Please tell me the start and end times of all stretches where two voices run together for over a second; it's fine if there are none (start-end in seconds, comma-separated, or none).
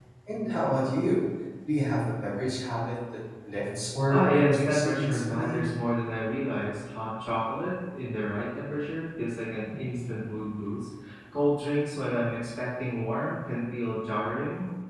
4.1-5.6